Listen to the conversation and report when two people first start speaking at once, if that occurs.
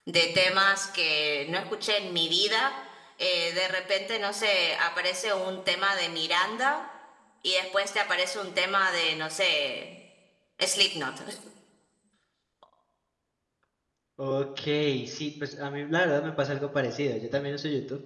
none

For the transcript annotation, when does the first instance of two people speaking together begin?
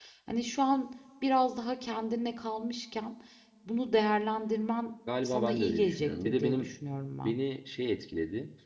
5 s

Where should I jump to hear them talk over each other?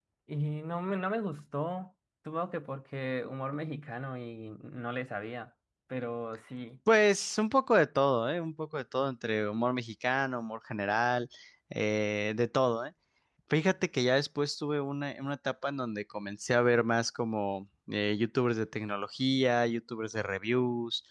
none

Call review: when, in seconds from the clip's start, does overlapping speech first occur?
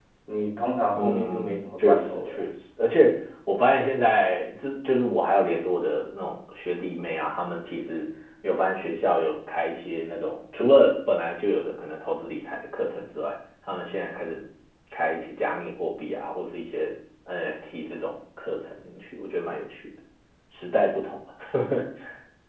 1 s

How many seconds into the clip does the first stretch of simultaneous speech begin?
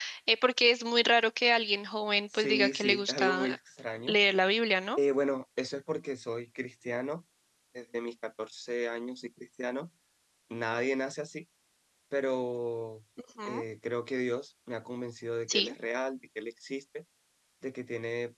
2 s

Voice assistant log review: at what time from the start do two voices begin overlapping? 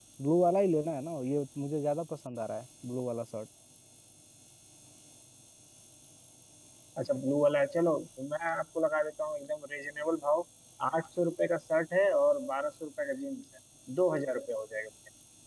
none

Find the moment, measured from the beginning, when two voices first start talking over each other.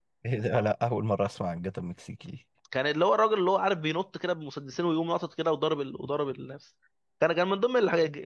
none

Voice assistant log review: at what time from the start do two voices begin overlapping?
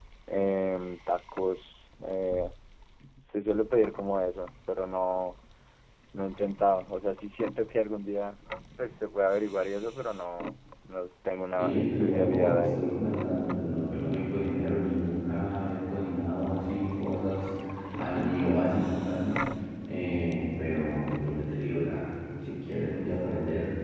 12 s

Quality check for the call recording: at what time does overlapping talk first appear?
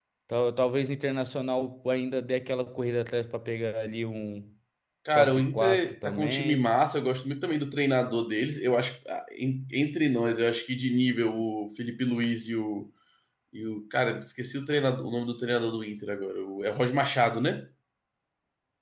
5 s

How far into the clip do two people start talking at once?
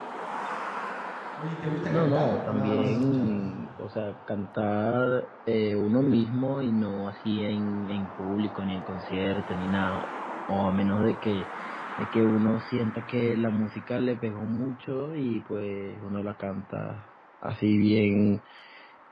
2 s

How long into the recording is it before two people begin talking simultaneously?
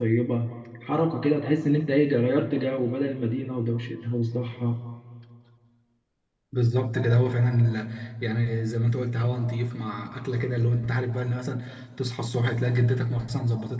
none

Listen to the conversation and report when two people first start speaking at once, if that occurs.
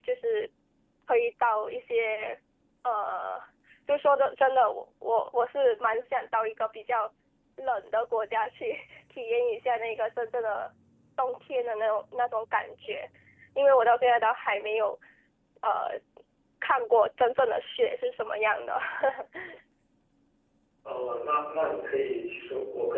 none

